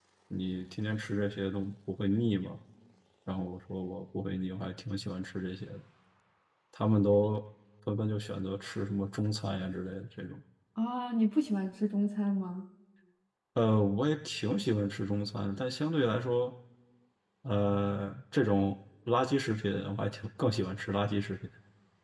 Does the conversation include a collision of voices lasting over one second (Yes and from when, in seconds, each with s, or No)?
No